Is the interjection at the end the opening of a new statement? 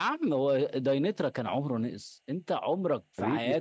Yes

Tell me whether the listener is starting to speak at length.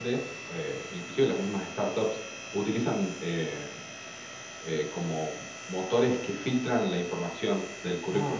Yes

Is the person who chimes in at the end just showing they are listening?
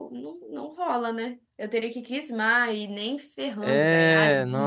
No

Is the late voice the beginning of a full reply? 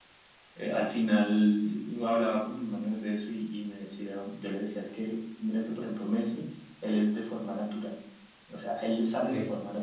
No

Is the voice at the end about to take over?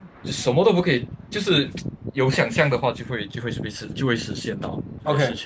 Yes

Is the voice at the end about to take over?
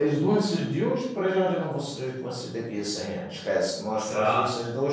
No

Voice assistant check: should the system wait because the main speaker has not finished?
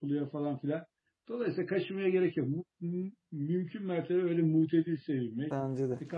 Yes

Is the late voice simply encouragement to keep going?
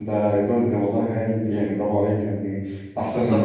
No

